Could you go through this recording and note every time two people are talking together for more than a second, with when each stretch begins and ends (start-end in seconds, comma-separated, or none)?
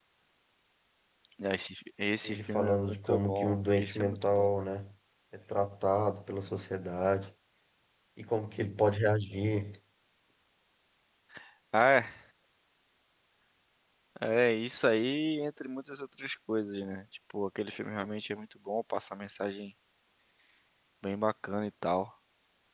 2.2-4.5